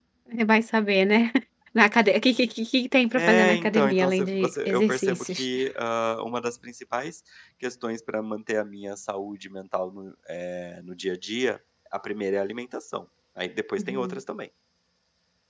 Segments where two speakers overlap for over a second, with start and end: 3.1-5.5

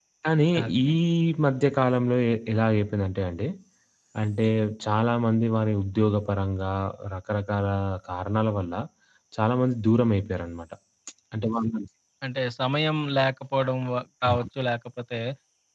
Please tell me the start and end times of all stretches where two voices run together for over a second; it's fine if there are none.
none

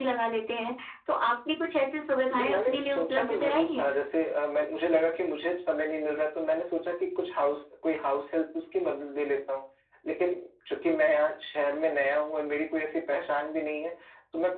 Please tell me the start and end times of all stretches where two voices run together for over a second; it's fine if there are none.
2.3-3.9

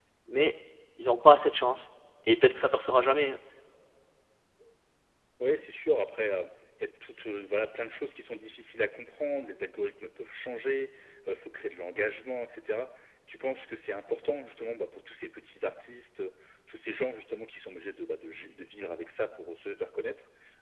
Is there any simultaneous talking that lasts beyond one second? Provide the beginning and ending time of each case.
none

